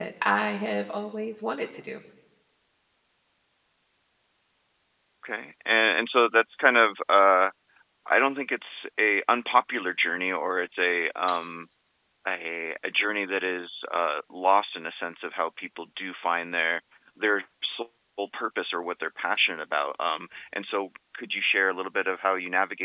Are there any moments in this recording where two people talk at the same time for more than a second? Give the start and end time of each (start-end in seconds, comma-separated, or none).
none